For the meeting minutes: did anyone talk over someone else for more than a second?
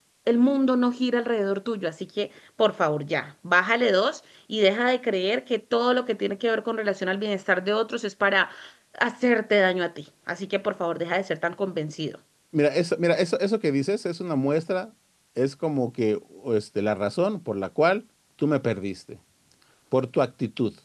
No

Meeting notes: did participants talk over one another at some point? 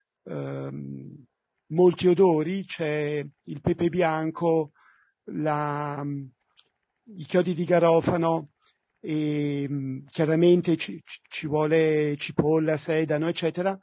No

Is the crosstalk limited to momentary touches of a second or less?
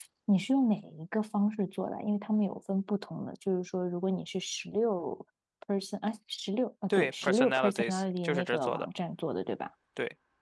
No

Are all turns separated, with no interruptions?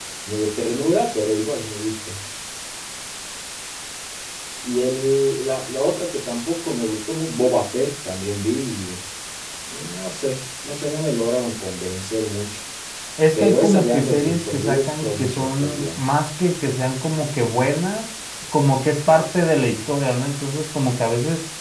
No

